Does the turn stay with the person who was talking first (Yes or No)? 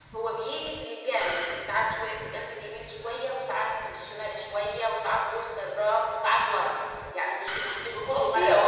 No